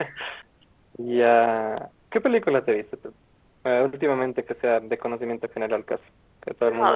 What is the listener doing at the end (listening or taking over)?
taking over